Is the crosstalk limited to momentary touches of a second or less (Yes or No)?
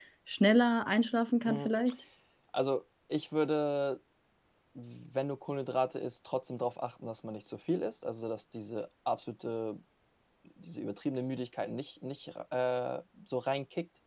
Yes